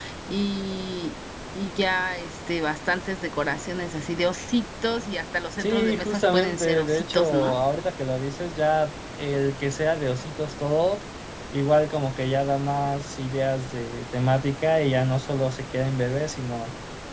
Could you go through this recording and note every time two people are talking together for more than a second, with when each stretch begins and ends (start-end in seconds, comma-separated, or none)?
5.6-7.6